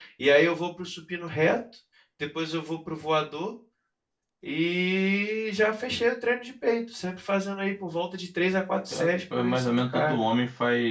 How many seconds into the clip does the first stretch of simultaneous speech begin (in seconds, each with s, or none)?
8.9 s